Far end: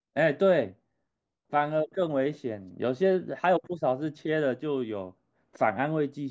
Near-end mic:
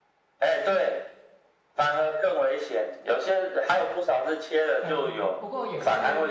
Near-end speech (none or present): present